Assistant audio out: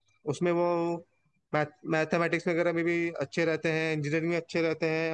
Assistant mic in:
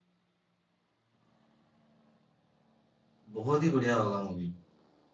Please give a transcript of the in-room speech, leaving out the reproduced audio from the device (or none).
बहुत ही बढ़िया होगा मूवी